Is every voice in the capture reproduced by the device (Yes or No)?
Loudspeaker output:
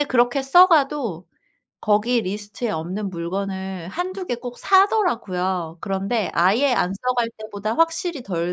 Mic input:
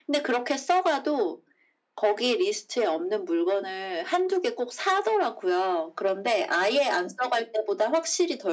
Yes